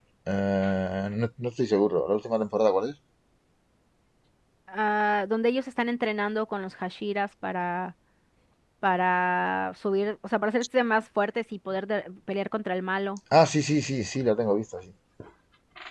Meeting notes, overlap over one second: none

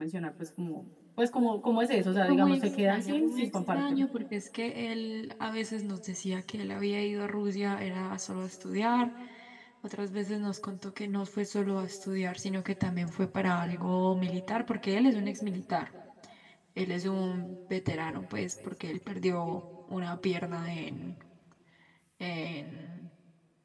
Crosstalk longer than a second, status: present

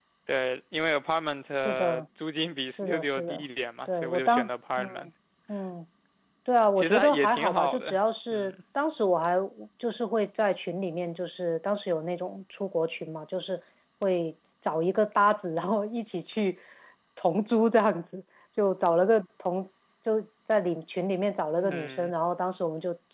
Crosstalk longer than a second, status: present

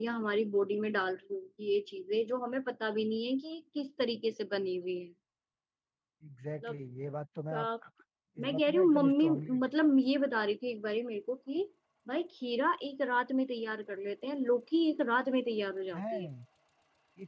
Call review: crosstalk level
present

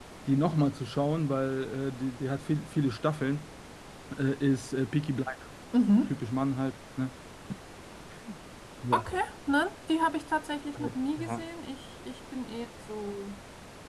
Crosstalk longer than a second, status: none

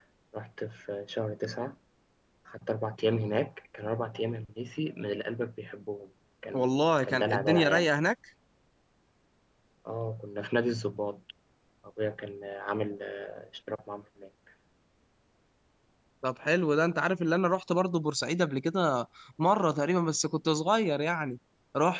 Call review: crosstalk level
present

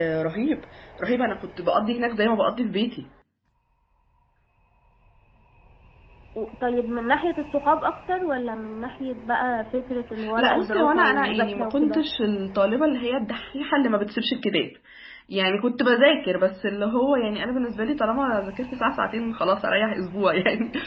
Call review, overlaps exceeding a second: present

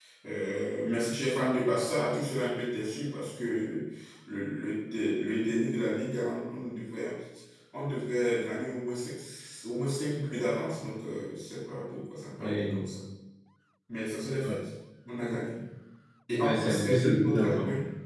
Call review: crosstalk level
present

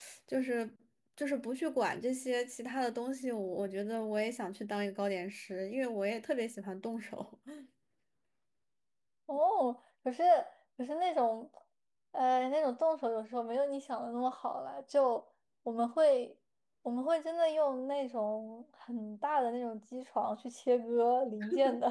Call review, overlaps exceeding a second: none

